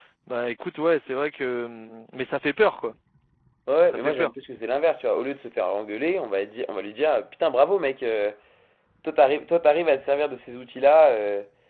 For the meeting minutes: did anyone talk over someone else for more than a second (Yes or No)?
No